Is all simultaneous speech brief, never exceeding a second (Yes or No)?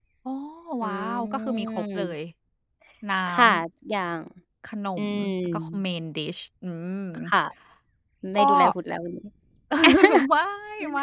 No